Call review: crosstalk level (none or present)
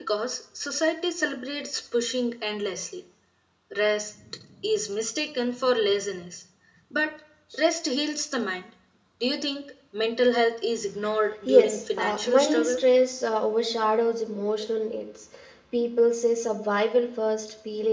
present